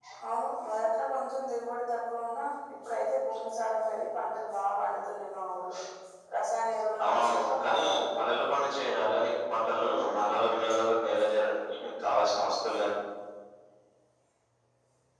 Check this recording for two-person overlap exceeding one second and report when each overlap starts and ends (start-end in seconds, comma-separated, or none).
7.0-8.5